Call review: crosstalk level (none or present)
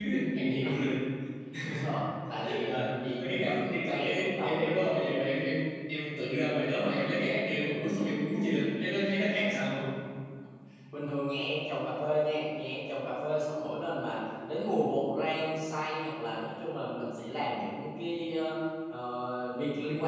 present